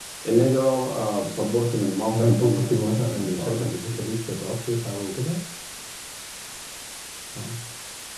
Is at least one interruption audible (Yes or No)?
Yes